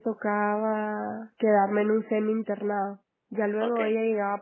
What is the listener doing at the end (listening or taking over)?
listening